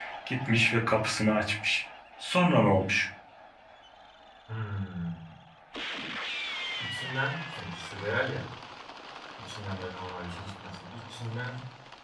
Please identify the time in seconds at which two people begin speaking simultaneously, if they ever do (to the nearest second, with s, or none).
none